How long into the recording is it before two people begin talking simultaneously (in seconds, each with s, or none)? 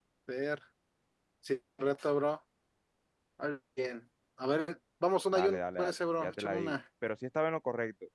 5.3 s